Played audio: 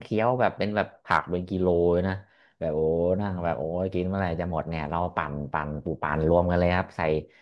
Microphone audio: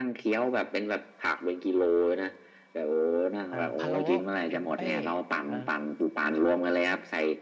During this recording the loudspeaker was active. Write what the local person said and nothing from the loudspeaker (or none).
เอ่อพะโล้เทมเป้เออ